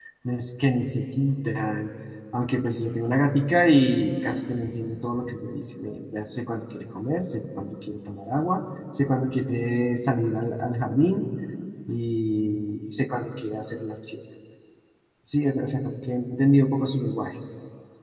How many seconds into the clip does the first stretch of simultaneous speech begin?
none

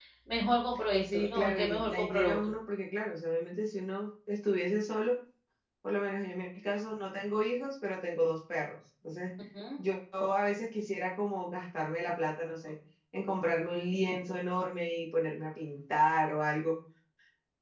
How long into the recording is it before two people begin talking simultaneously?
1.1 s

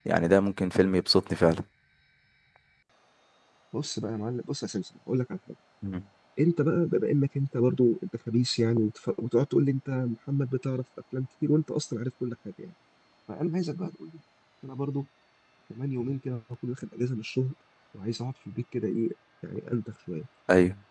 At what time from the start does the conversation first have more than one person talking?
none

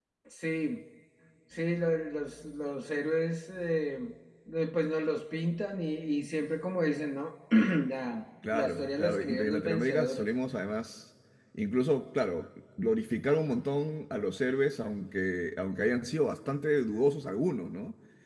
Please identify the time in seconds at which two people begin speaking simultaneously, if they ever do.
8.5 s

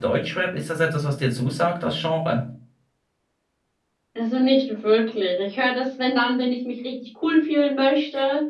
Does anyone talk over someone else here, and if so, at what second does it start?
none

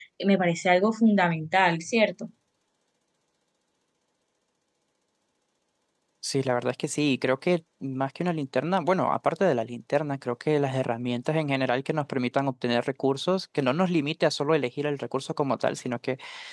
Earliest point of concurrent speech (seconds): none

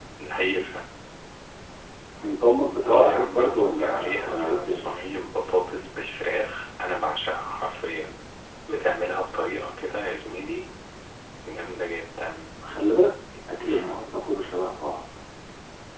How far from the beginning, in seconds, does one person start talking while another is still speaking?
2.9 s

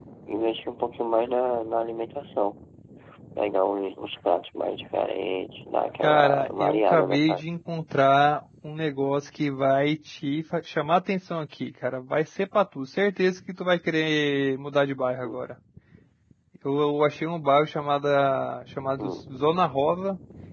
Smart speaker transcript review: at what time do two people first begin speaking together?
6.0 s

